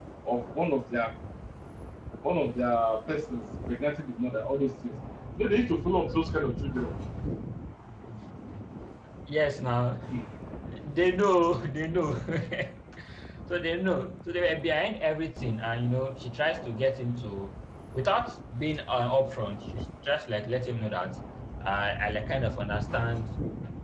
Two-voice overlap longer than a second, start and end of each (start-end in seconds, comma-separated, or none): none